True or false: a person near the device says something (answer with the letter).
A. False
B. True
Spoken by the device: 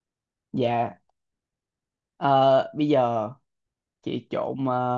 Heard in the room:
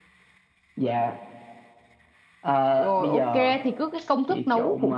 B